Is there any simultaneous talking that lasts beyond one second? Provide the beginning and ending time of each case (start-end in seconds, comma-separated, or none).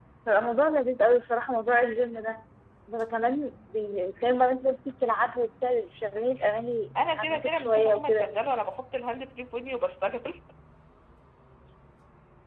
7.1-8.3